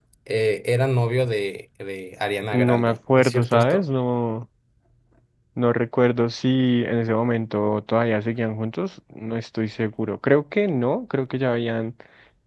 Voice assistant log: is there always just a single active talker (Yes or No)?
No